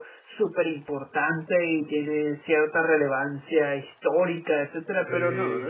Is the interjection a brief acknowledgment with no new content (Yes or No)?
Yes